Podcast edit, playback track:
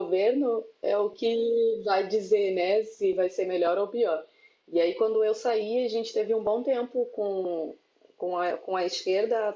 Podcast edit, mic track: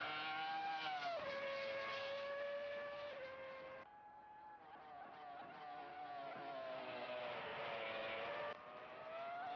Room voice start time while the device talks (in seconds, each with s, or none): none